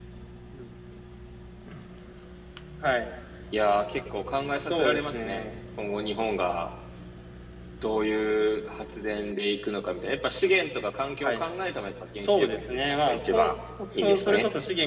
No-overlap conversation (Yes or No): No